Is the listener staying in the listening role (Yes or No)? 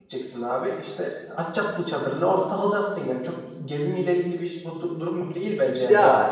No